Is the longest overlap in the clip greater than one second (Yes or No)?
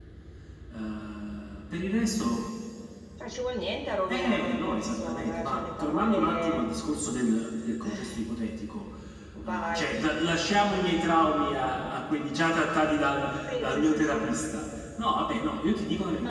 Yes